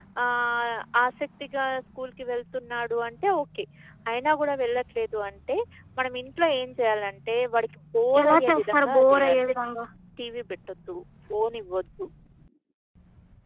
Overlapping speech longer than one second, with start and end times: 8.2-9.4

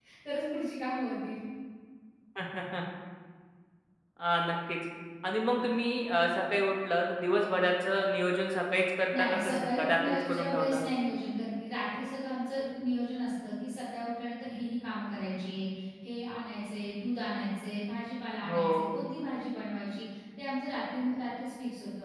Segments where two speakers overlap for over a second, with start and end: 9.2-10.8

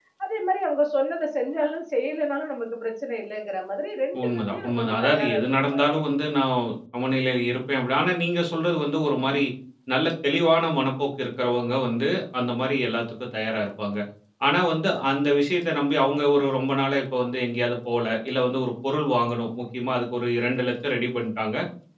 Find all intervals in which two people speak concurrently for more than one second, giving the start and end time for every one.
4.2-5.8

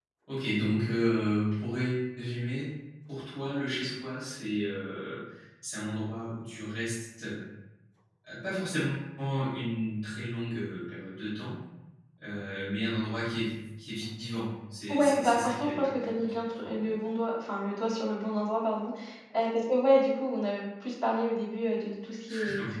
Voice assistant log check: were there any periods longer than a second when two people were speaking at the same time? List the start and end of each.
14.9-16.8

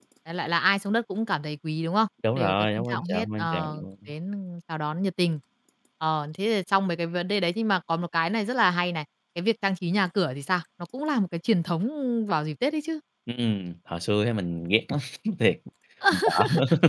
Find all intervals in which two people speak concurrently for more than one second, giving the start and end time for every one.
2.4-3.9

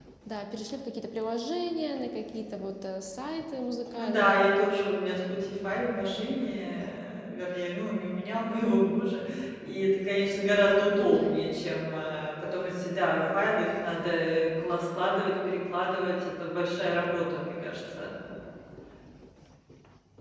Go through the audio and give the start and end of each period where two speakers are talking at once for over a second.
none

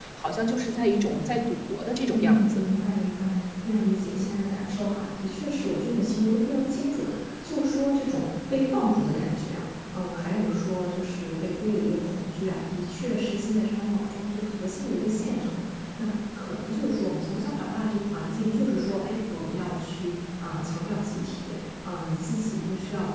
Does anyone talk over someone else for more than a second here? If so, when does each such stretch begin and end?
none

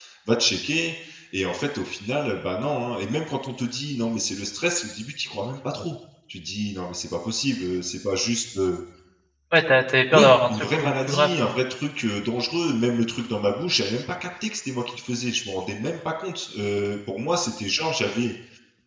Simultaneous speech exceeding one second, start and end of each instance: 10.1-11.5

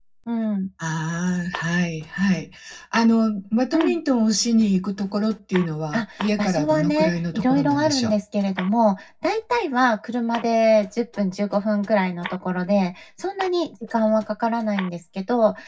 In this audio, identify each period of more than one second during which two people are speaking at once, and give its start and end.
5.9-8.1

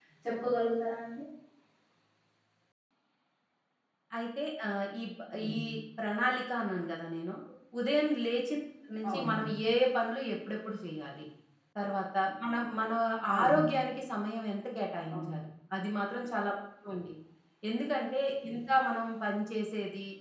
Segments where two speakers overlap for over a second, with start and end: none

